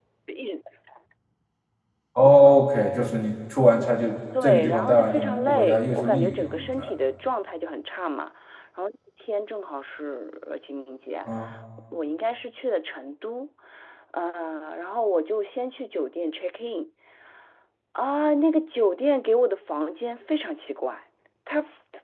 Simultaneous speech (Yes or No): Yes